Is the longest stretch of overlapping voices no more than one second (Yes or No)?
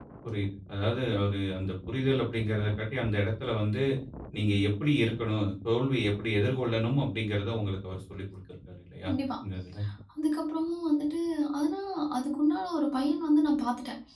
Yes